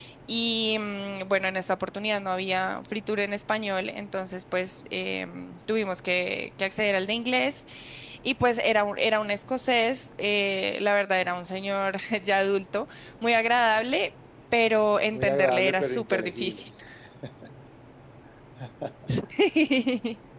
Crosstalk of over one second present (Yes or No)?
Yes